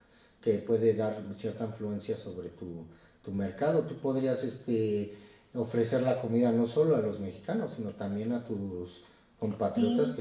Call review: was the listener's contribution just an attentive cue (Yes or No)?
No